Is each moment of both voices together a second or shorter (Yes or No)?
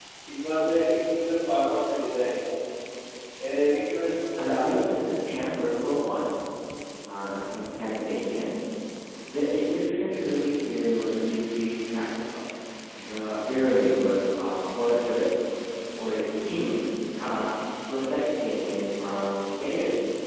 Yes